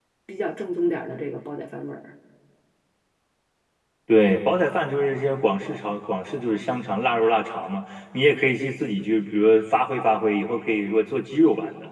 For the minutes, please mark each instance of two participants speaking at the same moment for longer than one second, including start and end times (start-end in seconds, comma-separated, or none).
none